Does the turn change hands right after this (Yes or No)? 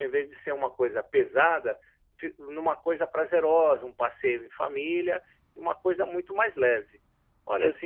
No